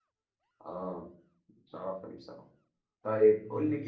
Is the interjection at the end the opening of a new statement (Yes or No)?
No